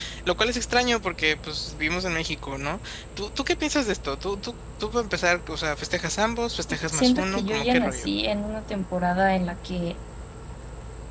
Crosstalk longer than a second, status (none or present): present